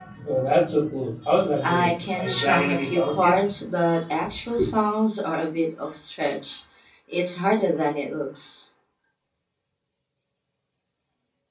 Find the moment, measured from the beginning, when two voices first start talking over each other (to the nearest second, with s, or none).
2 s